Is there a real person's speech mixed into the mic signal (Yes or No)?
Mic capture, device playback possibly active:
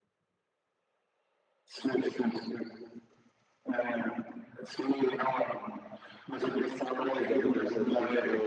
Yes